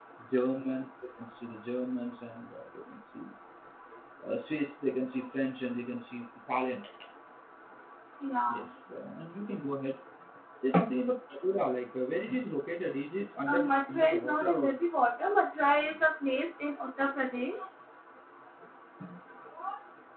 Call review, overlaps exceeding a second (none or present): present